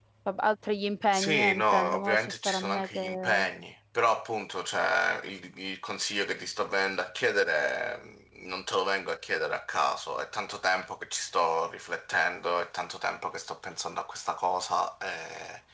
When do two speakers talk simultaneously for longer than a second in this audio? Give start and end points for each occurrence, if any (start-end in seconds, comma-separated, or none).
1.1-3.4